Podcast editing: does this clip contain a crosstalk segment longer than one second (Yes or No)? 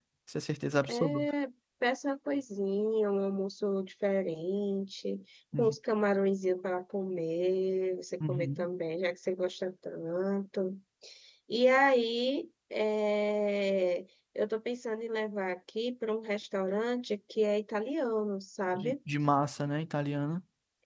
No